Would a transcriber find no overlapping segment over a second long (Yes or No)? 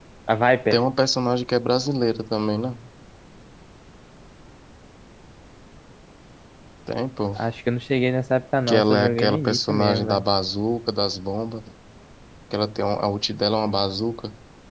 No